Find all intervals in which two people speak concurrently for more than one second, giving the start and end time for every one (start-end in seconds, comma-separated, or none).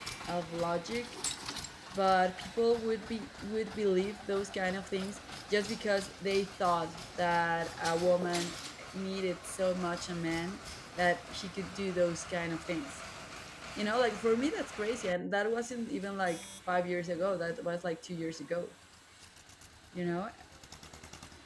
none